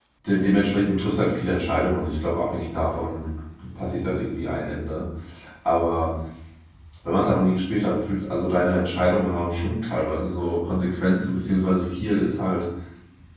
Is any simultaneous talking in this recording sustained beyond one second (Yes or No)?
No